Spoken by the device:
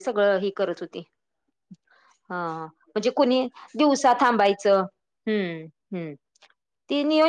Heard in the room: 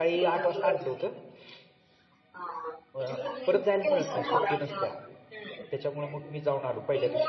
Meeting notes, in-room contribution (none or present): present